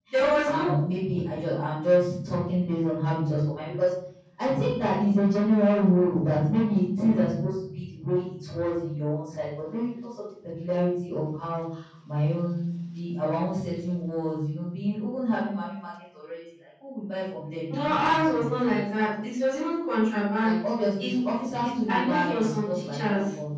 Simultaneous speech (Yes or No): Yes